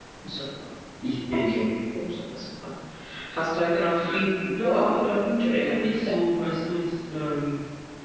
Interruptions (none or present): present